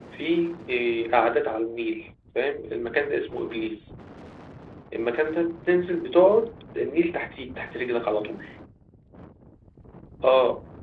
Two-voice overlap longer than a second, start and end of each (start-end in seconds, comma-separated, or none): none